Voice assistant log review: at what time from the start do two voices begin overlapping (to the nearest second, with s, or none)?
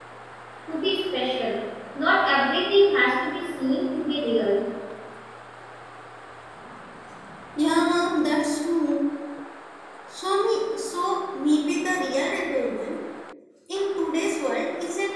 none